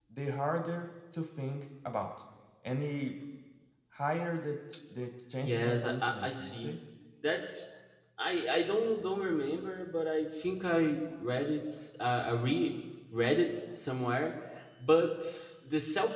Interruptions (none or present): present